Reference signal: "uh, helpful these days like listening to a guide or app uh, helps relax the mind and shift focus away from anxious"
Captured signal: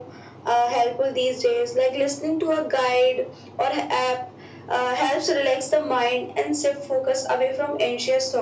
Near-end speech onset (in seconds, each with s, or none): none